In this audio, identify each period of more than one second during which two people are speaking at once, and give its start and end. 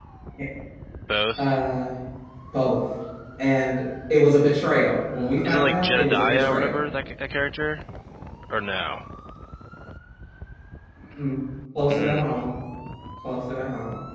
5.4-6.8

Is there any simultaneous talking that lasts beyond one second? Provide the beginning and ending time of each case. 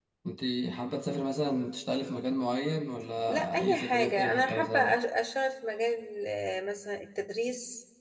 3.3-5.0

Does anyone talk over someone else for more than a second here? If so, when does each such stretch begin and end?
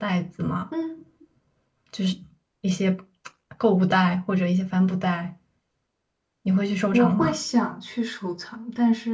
none

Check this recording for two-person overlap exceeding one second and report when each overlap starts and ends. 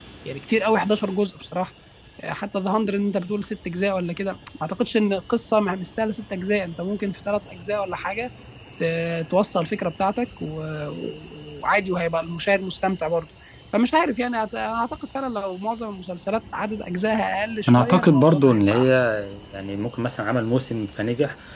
17.7-18.9

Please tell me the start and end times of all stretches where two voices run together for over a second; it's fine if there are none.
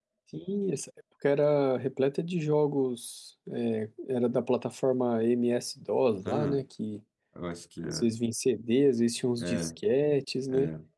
none

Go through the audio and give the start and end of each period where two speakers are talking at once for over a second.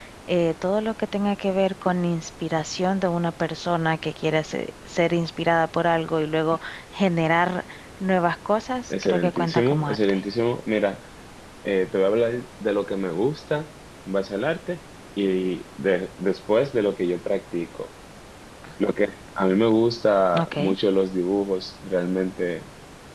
8.9-10.1

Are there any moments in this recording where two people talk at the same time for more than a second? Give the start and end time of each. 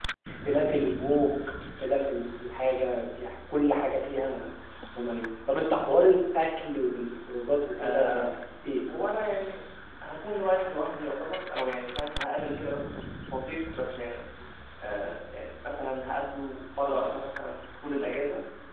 none

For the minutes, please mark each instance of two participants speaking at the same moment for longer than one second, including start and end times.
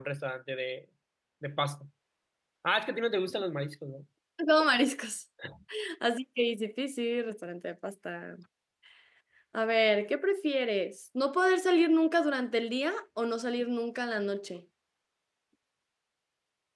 none

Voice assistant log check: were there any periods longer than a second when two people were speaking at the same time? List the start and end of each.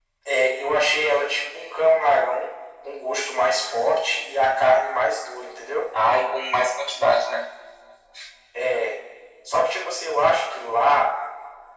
none

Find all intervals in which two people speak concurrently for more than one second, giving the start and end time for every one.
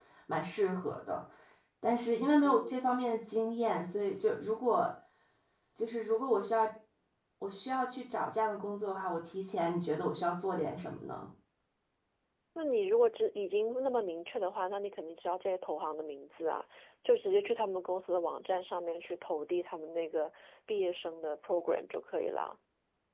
none

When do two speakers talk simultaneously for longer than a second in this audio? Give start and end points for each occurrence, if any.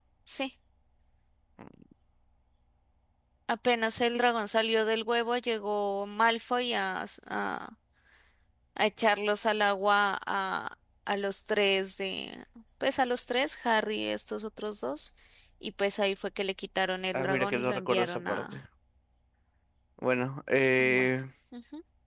17.1-18.6

